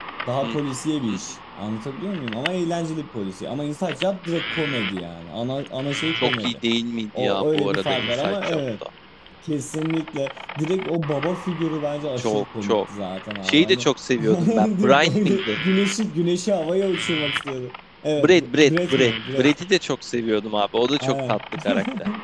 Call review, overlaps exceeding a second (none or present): present